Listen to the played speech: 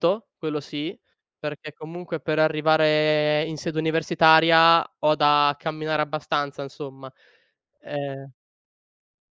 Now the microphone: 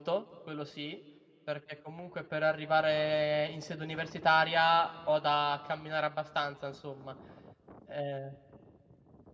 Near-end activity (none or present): none